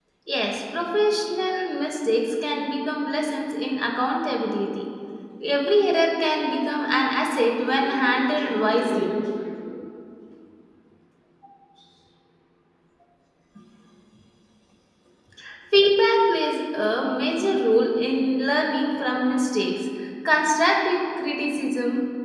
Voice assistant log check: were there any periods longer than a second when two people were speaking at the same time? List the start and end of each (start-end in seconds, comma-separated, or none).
7.8-9.2